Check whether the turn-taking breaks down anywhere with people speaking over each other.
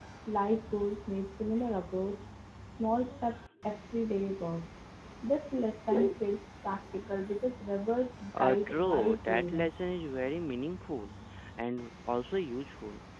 Yes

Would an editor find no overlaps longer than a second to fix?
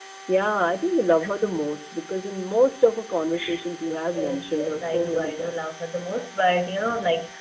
No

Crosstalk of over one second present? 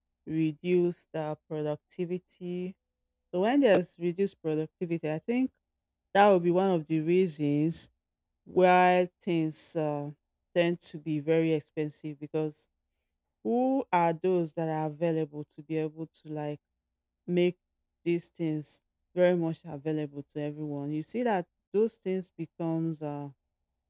No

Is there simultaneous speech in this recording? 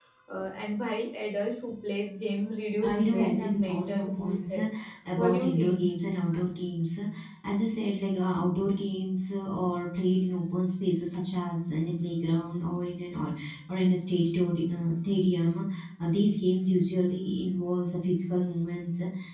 Yes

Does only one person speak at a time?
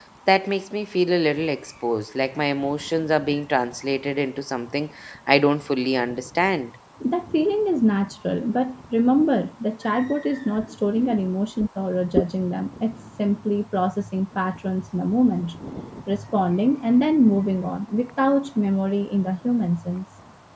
Yes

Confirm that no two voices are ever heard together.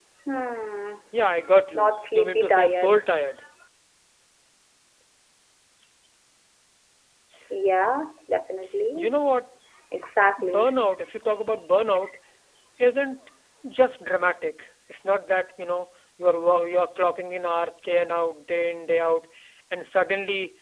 No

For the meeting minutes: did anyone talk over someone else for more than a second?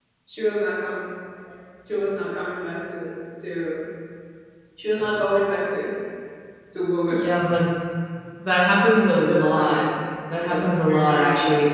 Yes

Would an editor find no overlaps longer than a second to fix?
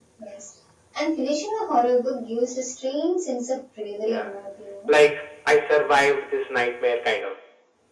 Yes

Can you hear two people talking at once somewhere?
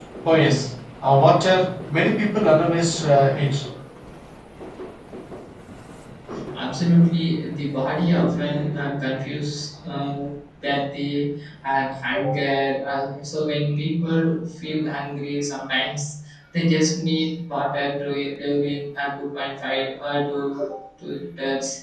No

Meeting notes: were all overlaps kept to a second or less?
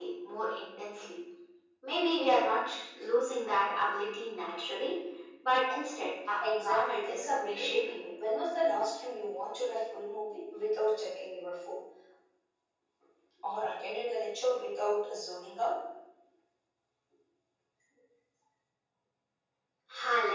No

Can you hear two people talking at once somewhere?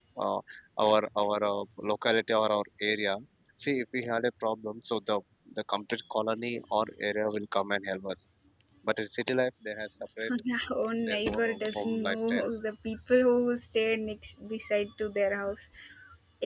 Yes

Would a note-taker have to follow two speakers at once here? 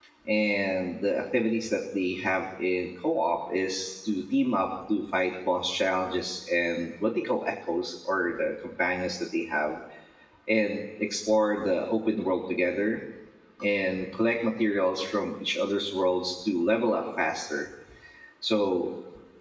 No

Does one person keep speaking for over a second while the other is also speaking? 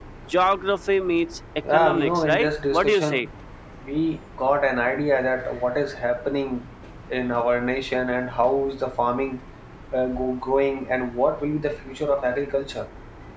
Yes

